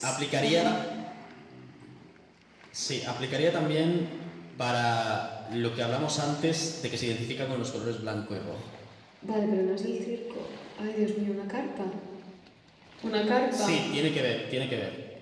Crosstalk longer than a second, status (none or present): none